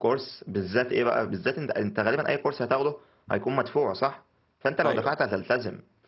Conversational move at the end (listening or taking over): listening